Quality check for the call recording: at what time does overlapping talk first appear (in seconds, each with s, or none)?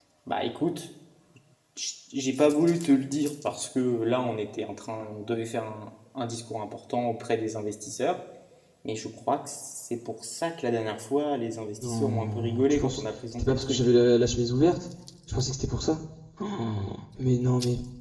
11.8 s